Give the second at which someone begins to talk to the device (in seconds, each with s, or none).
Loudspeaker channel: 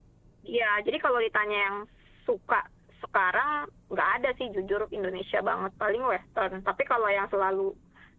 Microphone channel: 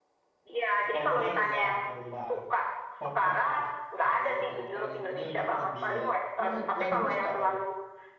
0.8 s